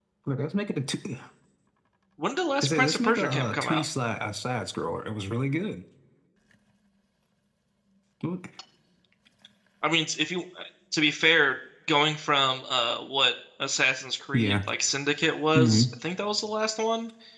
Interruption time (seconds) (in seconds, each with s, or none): 2.6 s